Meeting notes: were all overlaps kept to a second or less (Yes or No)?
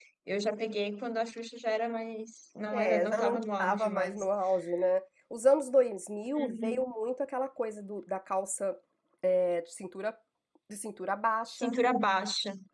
No